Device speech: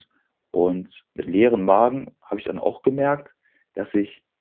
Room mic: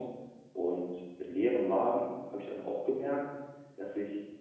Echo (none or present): present